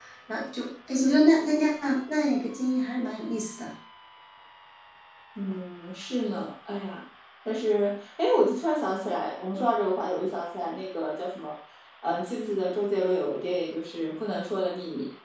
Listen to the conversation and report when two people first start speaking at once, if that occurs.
none

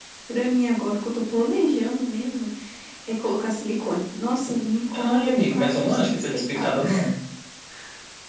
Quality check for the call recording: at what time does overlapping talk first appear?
4.9 s

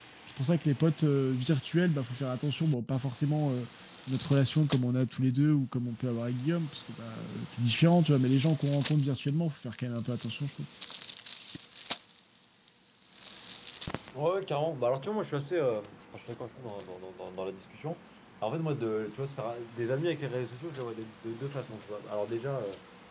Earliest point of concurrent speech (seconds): none

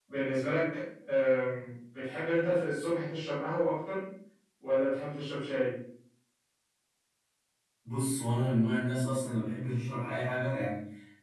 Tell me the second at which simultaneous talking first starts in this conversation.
none

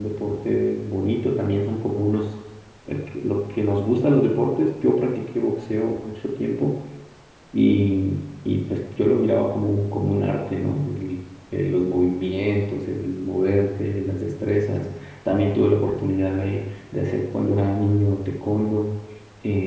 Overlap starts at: none

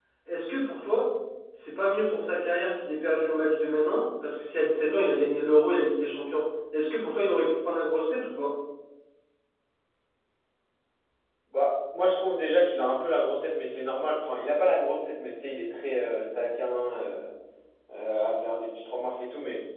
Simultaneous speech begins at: none

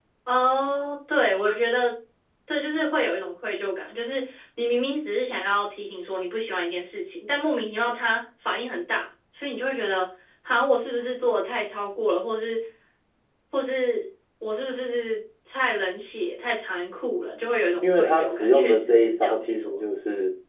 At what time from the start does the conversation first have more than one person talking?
17.8 s

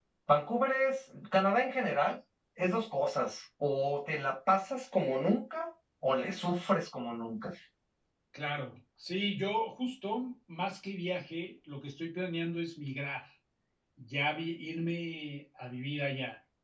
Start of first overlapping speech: none

